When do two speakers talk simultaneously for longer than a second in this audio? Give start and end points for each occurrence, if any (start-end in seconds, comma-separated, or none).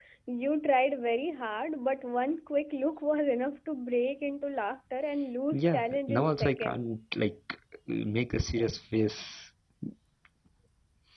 5.5-6.9